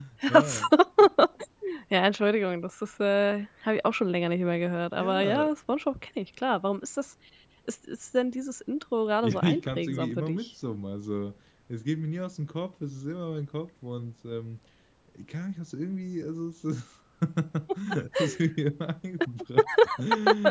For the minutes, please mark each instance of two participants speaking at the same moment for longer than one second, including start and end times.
9.2-10.5

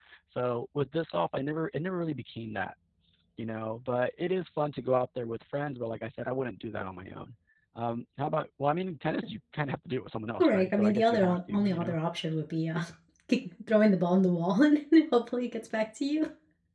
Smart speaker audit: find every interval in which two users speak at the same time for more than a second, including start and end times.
10.4-11.9

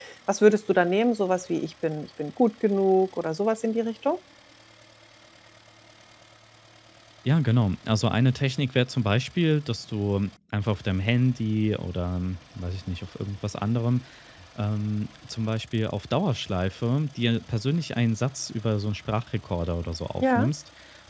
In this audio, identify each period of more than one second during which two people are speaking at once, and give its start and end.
none

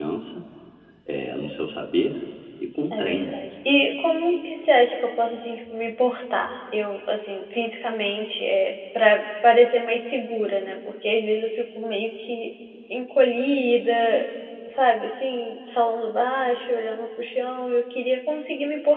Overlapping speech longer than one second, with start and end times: none

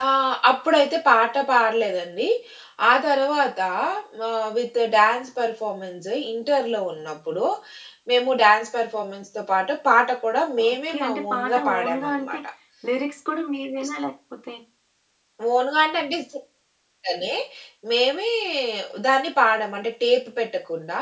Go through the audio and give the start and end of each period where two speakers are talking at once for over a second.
10.7-12.4

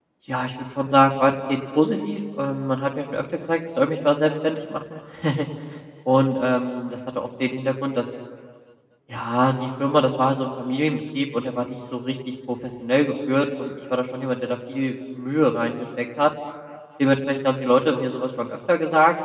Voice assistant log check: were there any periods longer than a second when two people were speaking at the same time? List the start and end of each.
none

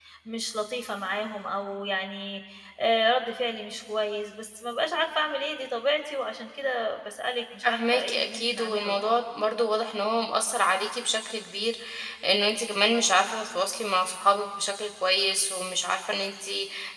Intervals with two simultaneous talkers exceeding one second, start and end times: 7.6-9.1

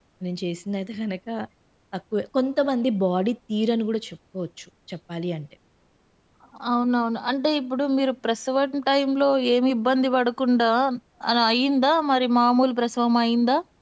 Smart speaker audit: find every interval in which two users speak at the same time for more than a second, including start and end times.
none

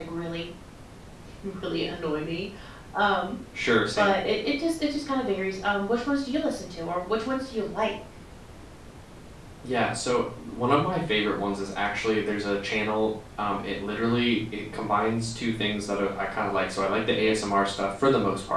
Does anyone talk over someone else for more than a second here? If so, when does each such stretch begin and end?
none

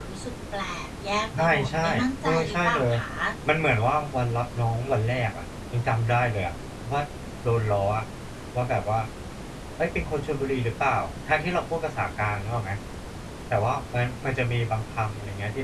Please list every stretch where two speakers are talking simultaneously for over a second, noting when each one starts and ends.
1.4-2.9

